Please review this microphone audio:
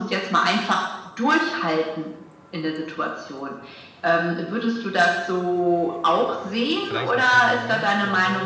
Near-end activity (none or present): present